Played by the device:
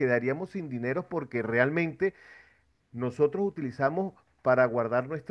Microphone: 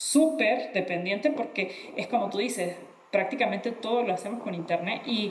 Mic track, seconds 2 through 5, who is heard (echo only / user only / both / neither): user only